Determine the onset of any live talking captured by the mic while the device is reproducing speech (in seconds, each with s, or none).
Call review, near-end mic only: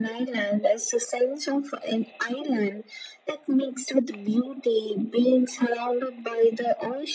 none